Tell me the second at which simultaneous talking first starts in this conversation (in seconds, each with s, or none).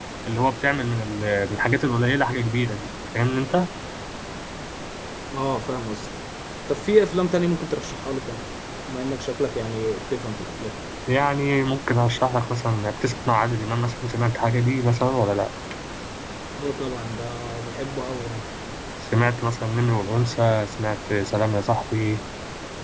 none